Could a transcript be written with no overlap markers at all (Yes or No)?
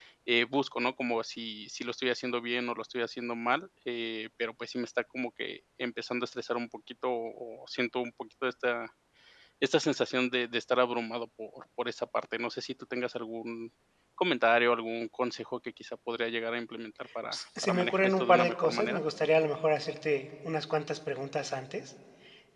No